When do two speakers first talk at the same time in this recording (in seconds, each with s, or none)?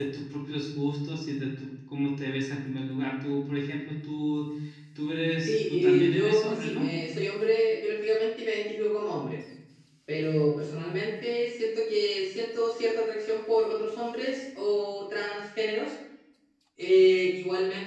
5.4 s